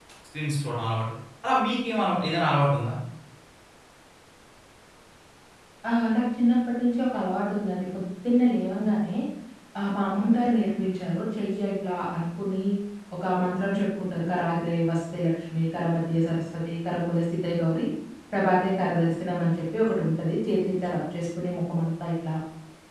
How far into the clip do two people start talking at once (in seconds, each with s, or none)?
none